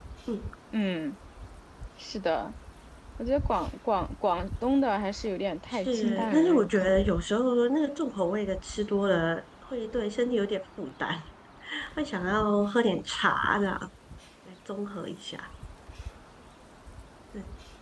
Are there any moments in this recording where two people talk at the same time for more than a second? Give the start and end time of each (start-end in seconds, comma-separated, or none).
5.7-7.1